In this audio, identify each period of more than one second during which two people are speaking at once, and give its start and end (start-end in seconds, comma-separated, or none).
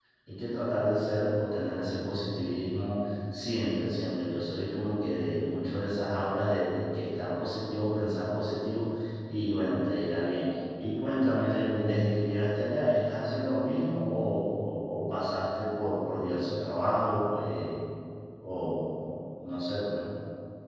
none